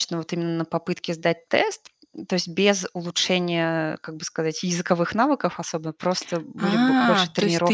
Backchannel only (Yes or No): No